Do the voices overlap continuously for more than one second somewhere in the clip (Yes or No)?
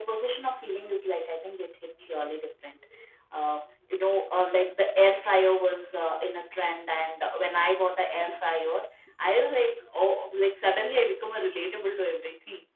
No